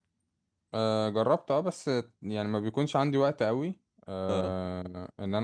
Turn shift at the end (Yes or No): No